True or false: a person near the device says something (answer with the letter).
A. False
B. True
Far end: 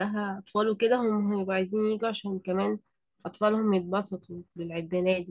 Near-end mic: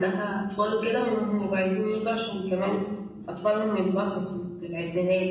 A